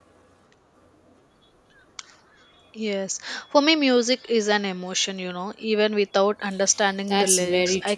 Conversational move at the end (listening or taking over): taking over